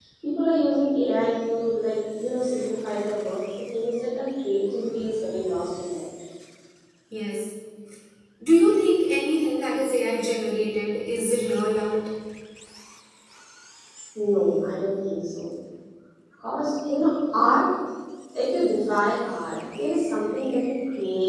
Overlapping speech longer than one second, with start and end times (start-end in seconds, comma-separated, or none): none